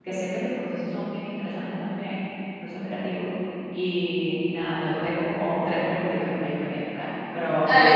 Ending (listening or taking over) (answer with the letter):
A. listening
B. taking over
B